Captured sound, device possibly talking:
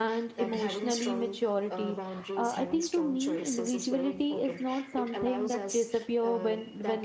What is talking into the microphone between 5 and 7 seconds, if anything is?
both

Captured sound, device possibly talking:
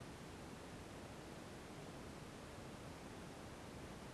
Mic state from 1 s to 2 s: neither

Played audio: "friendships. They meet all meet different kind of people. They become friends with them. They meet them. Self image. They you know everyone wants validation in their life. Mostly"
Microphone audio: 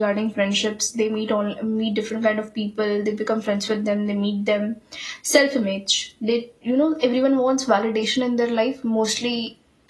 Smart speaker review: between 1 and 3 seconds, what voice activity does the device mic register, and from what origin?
echo only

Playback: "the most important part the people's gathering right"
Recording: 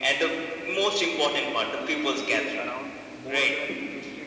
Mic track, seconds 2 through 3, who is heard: both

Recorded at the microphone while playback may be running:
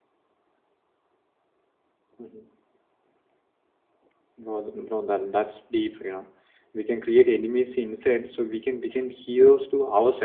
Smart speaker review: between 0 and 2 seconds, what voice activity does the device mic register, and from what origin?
neither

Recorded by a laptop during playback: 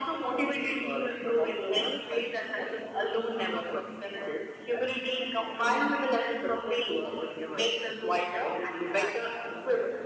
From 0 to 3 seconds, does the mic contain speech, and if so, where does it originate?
echo only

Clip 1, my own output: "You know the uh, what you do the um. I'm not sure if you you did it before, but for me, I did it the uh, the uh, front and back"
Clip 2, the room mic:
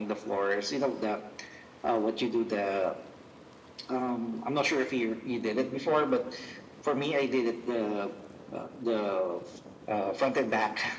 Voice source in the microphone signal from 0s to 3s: echo only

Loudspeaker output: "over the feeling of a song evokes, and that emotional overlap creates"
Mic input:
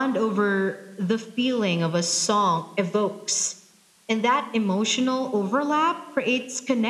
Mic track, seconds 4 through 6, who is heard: echo only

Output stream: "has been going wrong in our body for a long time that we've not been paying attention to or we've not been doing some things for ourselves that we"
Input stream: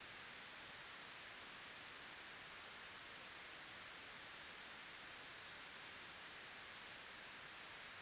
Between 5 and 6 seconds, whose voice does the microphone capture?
neither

